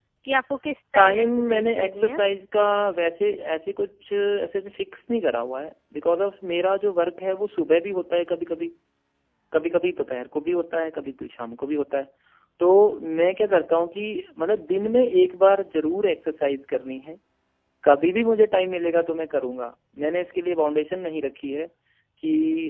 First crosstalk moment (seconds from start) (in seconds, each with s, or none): 1.0 s